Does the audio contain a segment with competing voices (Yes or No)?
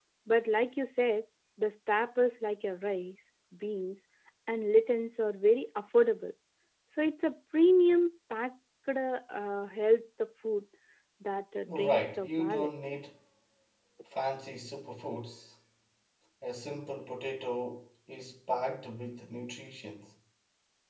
Yes